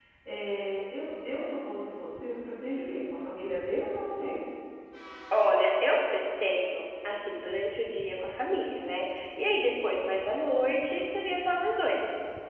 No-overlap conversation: Yes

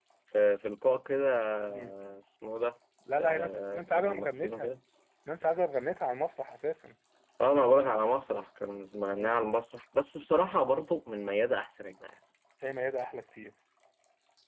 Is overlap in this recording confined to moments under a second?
No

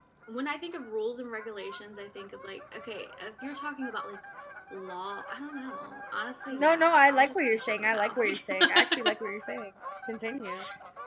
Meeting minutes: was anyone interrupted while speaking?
Yes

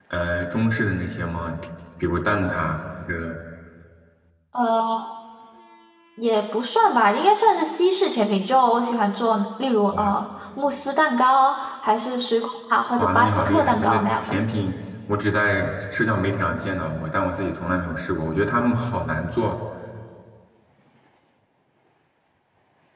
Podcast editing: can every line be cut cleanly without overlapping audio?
No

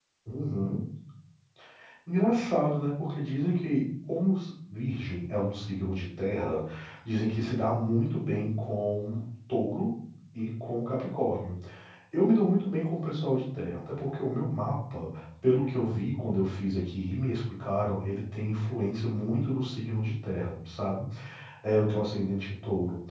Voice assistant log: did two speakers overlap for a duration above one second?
No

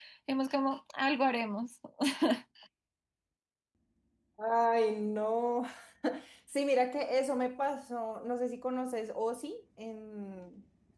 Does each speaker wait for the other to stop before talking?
Yes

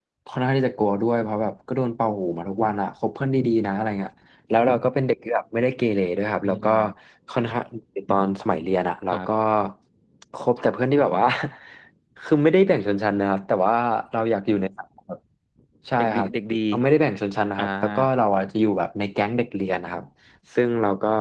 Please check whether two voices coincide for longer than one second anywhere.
No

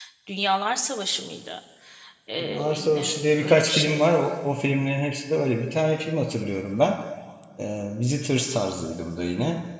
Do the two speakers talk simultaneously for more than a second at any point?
Yes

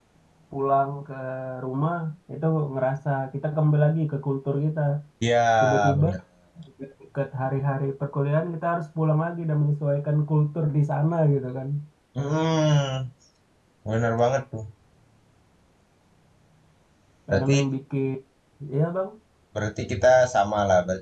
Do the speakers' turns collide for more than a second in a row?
No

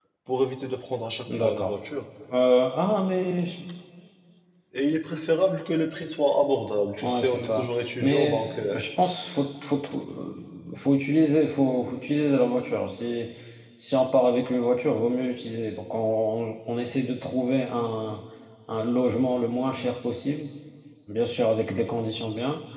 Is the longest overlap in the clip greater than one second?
Yes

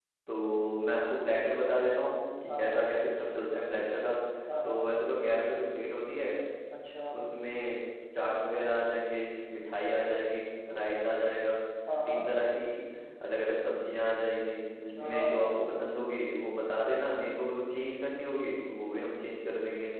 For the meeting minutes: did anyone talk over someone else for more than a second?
No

